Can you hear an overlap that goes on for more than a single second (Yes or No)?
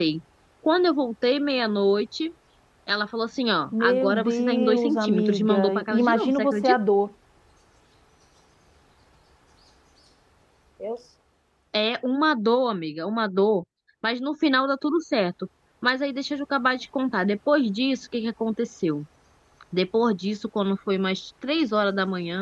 Yes